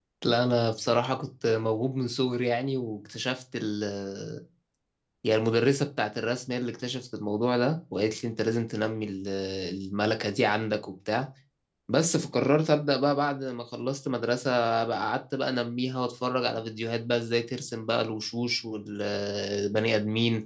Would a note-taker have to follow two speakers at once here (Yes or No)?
No